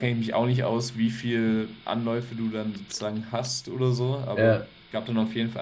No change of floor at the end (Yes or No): Yes